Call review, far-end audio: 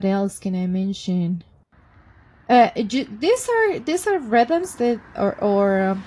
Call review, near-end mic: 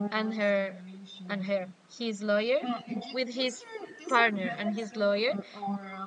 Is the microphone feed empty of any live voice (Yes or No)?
No